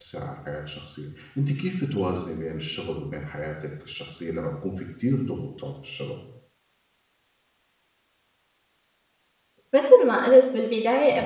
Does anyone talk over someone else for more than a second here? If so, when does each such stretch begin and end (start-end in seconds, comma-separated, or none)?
none